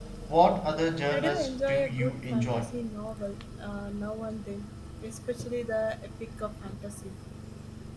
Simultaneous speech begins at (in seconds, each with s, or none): 1.1 s